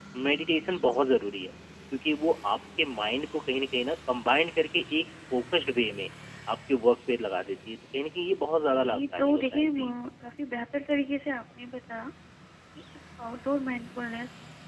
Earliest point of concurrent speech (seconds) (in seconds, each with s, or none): 8.7 s